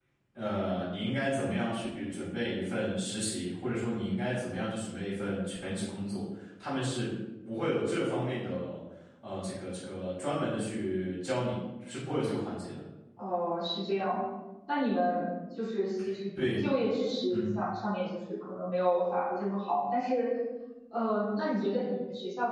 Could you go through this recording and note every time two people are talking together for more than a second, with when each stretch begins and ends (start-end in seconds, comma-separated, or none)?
none